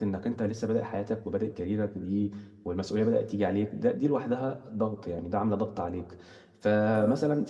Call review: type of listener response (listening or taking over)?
listening